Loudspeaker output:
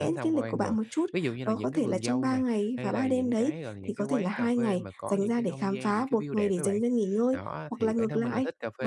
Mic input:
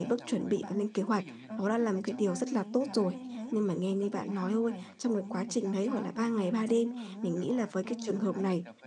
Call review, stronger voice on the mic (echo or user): user